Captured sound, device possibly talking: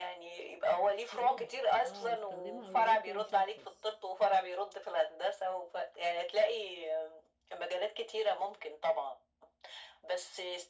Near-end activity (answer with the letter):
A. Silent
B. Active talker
B